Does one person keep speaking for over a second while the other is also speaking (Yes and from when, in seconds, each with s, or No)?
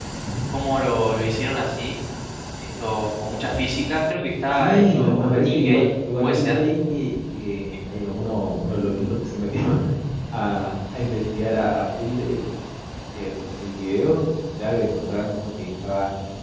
Yes, from 4.6 s